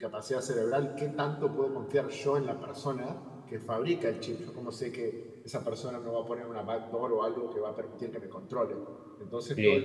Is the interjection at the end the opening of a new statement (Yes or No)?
No